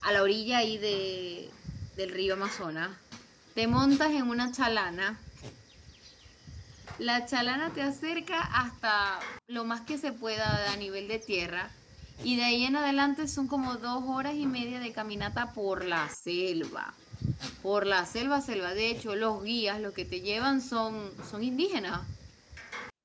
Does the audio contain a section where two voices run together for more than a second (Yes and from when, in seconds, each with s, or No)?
No